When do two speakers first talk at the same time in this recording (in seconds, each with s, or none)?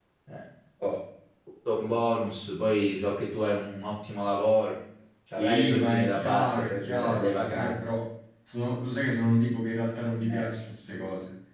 5.4 s